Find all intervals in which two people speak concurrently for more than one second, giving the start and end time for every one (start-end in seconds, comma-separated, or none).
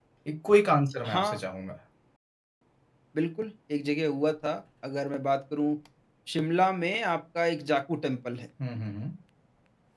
none